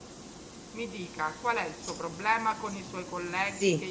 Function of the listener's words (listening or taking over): listening